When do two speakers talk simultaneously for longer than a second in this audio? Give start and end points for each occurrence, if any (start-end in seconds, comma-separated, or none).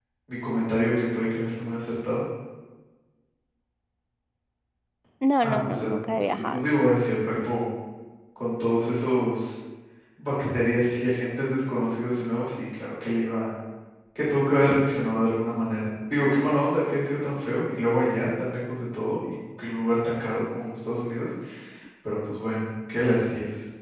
5.4-6.6